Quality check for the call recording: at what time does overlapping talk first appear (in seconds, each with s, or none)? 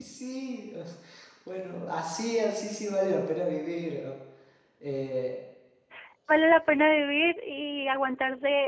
none